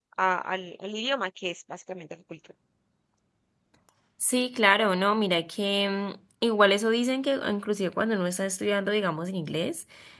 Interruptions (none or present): none